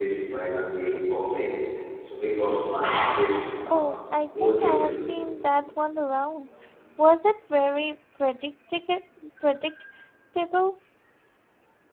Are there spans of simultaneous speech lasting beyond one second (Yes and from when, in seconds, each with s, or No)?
No